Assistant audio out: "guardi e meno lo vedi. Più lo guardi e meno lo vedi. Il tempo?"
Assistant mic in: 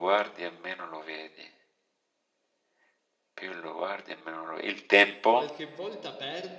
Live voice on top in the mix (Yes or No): No